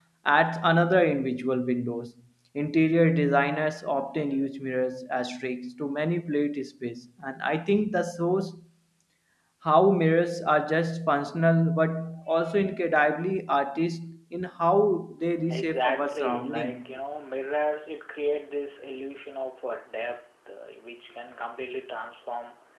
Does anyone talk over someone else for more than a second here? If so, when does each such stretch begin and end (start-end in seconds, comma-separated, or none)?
15.5-16.8